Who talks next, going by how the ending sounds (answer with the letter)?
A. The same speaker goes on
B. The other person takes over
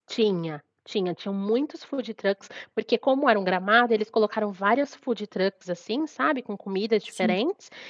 A